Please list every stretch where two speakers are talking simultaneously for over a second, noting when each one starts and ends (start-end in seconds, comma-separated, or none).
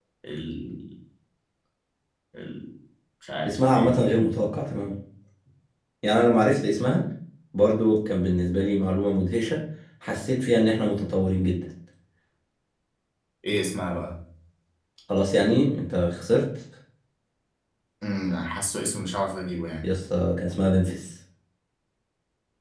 none